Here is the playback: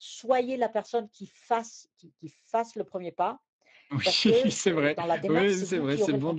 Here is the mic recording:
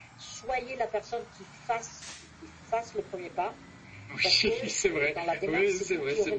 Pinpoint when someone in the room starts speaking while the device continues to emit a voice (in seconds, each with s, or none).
none